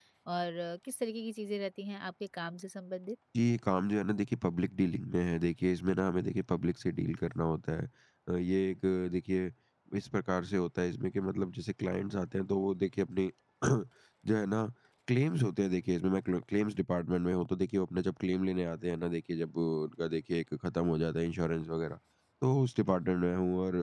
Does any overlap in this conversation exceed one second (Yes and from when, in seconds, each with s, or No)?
No